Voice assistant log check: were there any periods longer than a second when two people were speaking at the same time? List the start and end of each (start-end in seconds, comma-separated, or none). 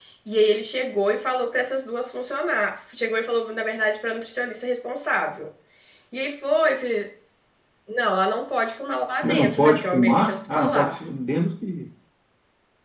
9.2-11.0